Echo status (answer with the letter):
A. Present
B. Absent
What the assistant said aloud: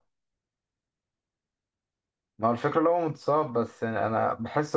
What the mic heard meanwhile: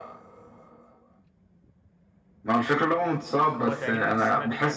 A